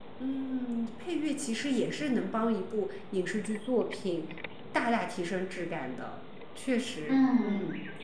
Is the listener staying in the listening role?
No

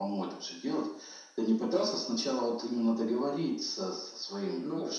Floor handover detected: No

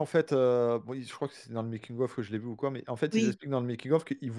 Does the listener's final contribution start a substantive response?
No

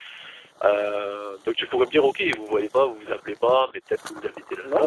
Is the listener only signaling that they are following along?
No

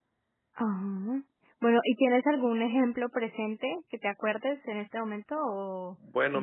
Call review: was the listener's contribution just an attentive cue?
No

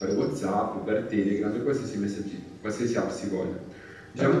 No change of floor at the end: No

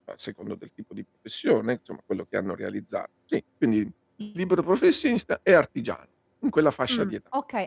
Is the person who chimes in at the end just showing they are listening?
No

